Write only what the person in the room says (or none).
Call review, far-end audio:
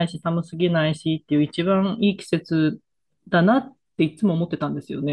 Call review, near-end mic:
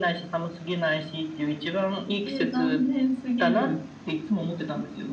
えー、残念すぎる。